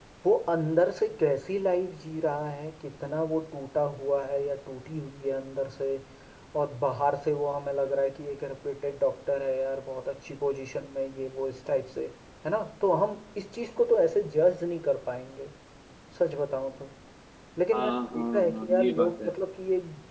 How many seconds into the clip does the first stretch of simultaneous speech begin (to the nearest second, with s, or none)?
18 s